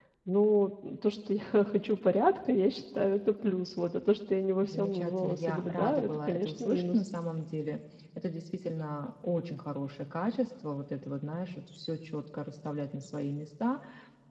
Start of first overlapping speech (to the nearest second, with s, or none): 5 s